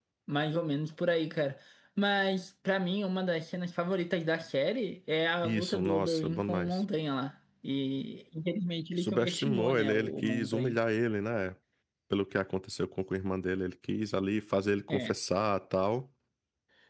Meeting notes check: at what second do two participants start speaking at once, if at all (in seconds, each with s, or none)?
5.4 s